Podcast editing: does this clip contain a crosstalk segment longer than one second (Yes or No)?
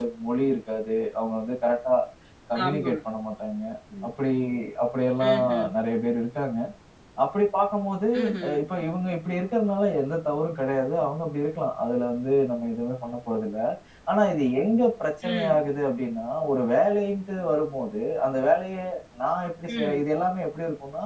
No